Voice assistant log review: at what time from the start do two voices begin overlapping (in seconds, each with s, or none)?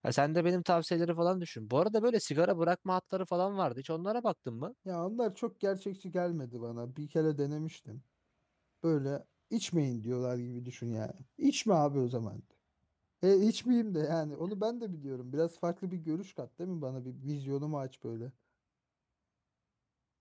none